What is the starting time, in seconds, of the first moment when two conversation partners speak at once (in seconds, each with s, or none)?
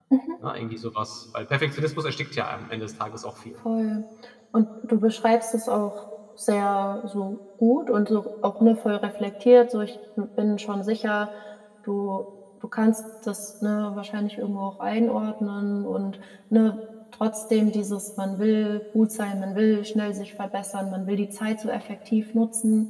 none